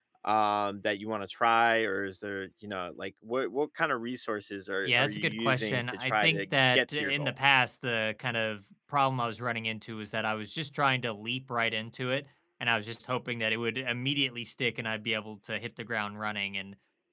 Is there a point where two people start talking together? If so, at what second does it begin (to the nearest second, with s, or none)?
5 s